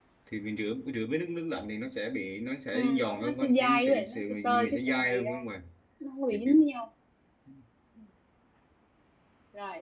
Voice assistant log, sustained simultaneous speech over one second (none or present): present